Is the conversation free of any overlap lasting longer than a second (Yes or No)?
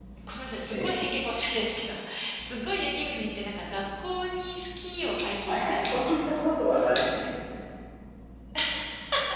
No